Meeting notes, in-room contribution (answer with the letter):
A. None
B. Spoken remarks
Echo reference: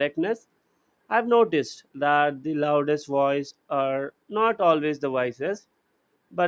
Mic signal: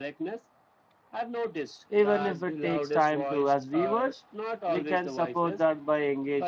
B